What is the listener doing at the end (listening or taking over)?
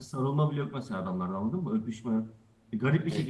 listening